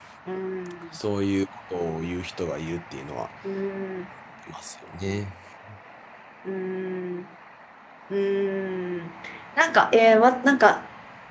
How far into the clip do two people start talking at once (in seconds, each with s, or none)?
none